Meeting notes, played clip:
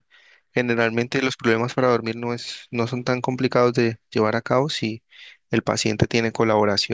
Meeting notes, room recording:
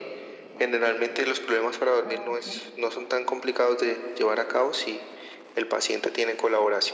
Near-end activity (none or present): present